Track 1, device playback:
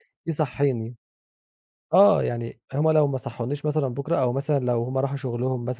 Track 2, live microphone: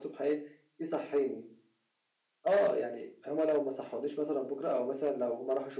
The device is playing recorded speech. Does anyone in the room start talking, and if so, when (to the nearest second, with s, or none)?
none